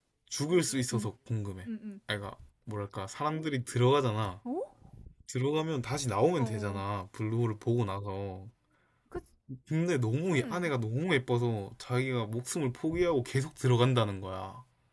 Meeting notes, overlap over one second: none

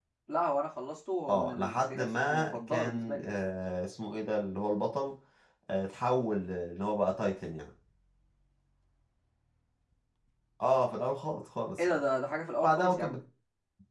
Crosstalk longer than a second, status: present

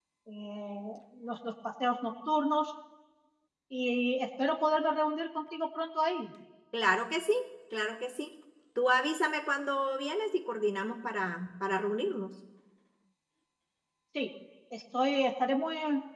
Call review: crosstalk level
none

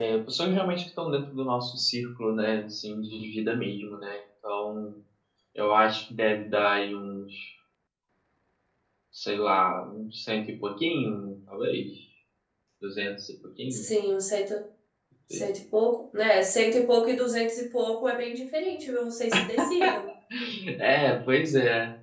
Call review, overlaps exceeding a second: none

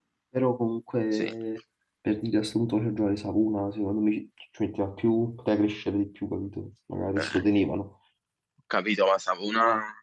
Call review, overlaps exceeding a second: none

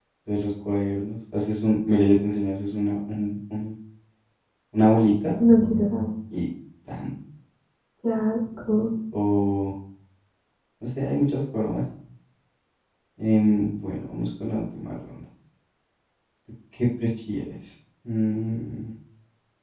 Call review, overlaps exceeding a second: none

